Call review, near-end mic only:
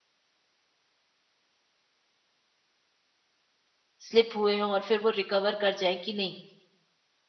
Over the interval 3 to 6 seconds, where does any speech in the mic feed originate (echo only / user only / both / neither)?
user only